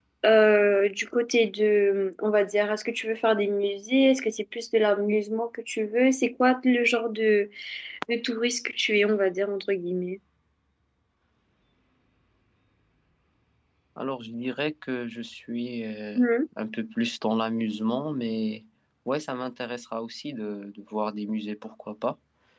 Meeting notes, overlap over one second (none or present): none